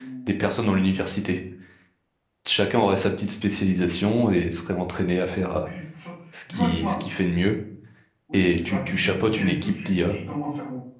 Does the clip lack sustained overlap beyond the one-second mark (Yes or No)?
No